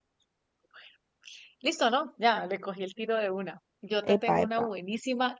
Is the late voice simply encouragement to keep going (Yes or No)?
Yes